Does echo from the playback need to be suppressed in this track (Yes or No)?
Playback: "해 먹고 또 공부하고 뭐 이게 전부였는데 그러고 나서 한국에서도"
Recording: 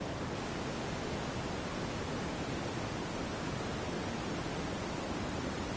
No